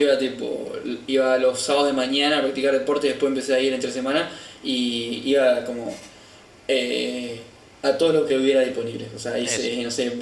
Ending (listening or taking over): listening